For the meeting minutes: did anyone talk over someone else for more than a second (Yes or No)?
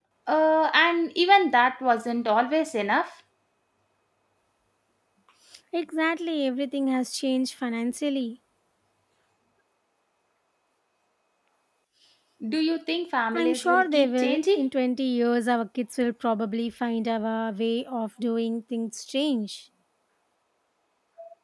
Yes